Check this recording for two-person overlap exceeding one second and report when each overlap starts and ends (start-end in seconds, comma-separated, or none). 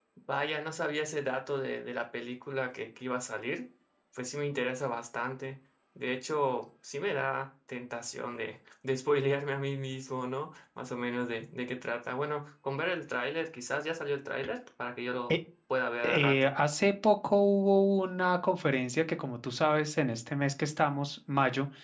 none